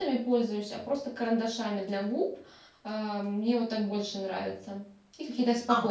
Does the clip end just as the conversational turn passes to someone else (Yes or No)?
Yes